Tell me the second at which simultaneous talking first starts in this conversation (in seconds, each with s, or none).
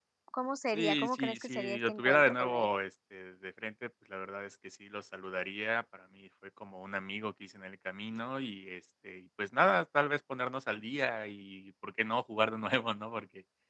0.7 s